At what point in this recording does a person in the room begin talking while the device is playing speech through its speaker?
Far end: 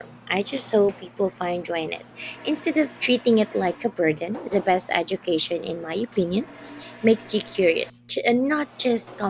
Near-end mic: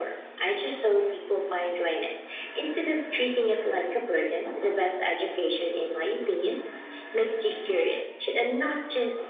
none

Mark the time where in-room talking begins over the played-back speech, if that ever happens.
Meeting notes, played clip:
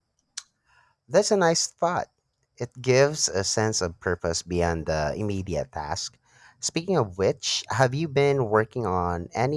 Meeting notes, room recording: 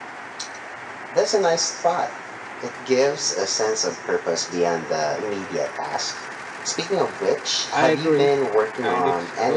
8 s

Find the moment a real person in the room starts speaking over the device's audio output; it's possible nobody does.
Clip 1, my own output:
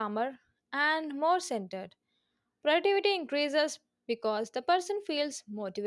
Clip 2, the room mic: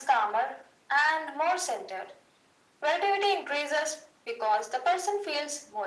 none

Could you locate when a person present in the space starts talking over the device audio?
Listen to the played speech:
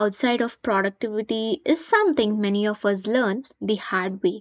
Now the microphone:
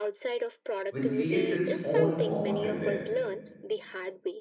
1 s

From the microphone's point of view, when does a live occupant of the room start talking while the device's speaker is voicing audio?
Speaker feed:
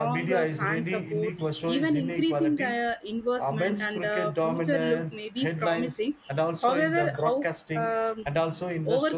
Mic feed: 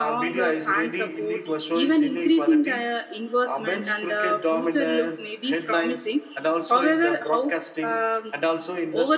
none

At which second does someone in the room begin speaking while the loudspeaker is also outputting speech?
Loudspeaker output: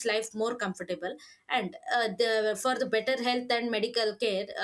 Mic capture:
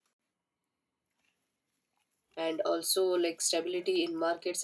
2 s

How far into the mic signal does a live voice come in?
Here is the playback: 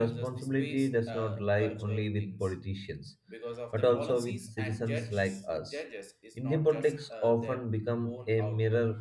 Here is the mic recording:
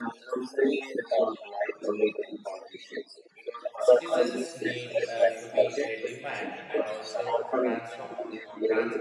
4 s

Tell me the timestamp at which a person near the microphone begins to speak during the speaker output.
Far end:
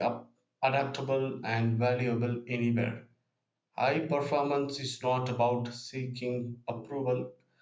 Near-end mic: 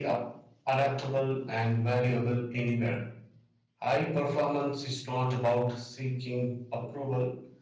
none

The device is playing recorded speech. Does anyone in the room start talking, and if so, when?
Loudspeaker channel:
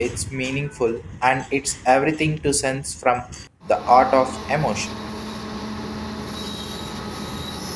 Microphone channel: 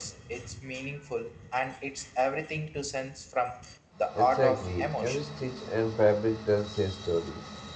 4 s

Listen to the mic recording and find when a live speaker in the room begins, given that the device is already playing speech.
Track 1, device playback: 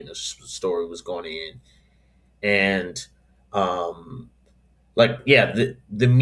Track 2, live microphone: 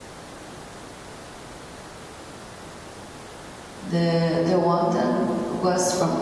4 s

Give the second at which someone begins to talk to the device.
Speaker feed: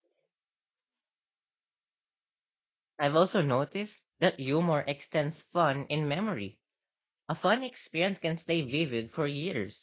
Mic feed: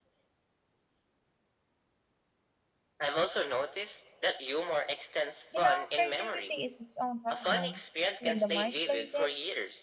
6 s

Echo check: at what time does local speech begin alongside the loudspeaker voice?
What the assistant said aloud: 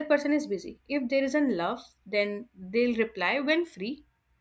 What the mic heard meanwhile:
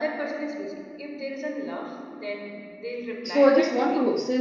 3 s

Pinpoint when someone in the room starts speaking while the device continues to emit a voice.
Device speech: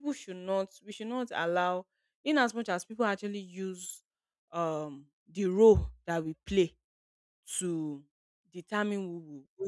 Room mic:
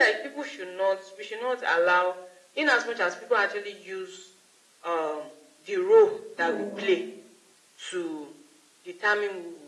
6 s

